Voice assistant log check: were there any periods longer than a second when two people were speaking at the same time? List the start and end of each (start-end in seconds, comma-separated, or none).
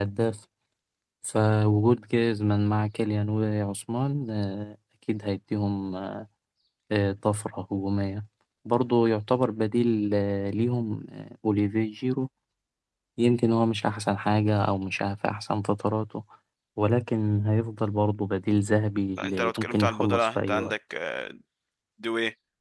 19.2-20.7